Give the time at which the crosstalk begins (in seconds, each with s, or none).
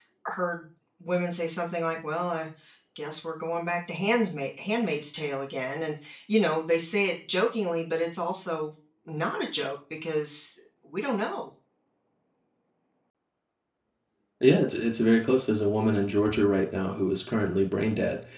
none